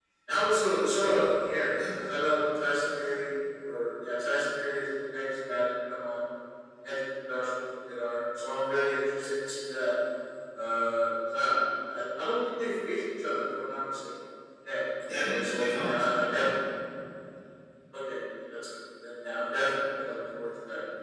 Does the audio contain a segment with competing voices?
Yes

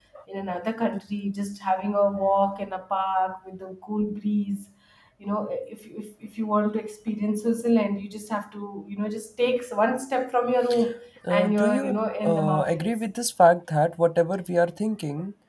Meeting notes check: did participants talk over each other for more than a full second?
Yes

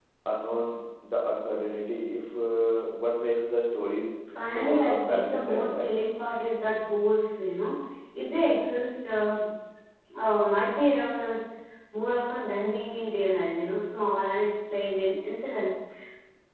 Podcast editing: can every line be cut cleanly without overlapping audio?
No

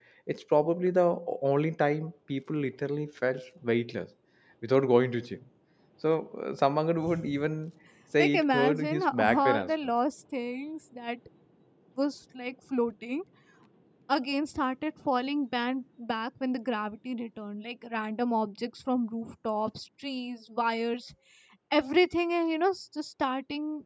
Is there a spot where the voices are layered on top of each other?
Yes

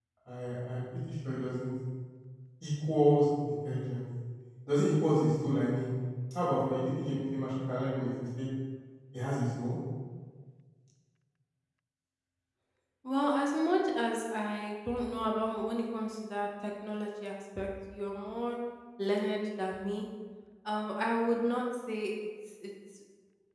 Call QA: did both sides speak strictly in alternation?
Yes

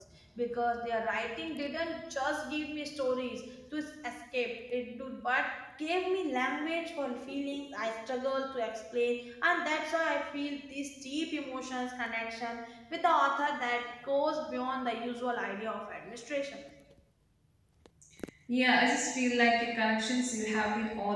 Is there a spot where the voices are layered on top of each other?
No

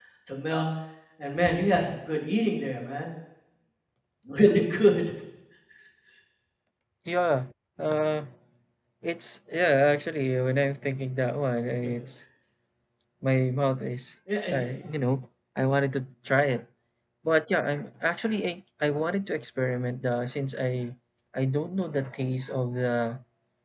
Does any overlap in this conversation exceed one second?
No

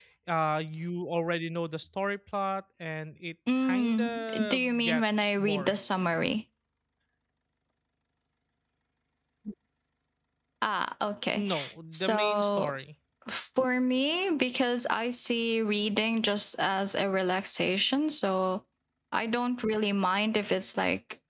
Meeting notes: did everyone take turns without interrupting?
No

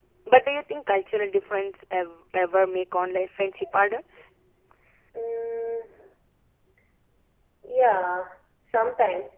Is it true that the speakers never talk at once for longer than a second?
Yes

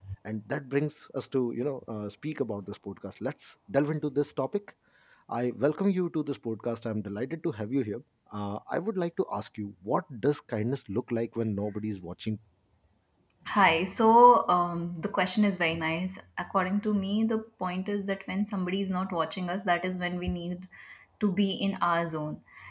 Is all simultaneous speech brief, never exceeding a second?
Yes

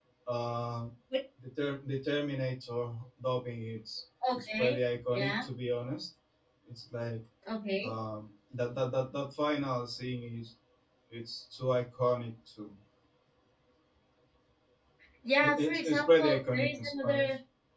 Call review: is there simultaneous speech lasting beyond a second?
Yes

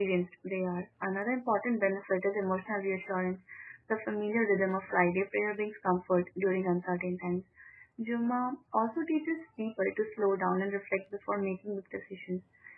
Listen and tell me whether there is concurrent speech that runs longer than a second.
No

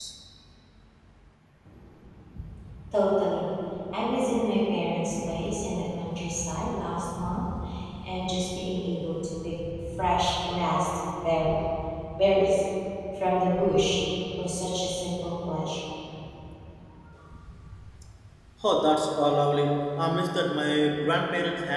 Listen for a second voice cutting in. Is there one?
No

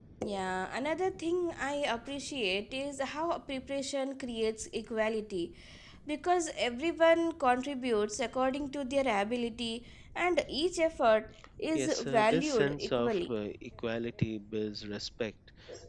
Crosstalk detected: Yes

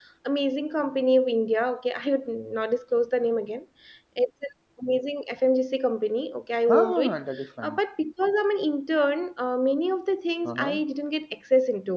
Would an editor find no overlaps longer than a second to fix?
Yes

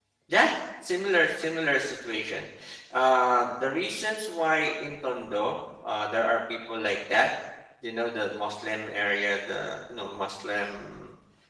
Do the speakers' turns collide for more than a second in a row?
No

